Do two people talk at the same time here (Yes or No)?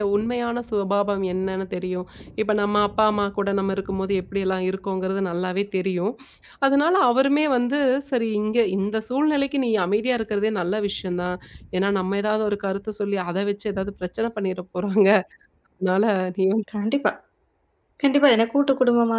No